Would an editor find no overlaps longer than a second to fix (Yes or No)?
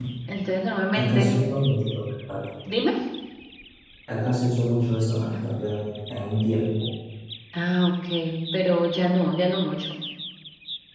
Yes